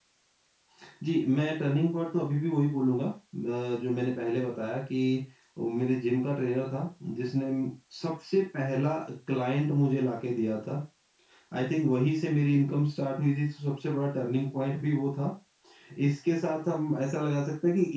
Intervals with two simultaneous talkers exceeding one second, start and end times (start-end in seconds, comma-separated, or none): none